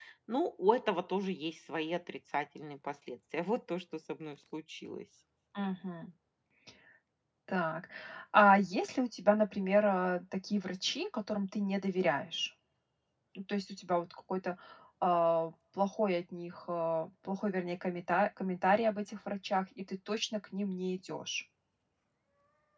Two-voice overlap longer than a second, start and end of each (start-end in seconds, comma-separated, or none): none